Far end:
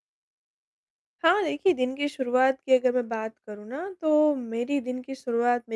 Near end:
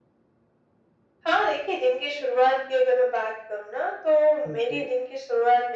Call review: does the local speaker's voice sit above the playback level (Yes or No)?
No